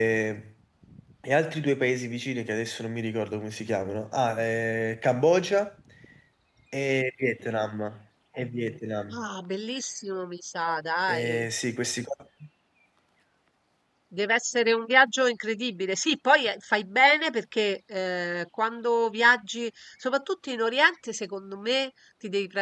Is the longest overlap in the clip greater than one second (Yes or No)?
No